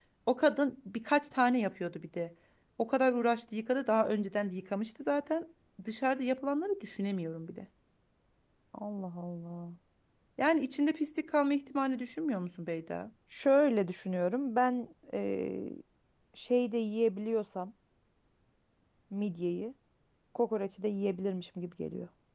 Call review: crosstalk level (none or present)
none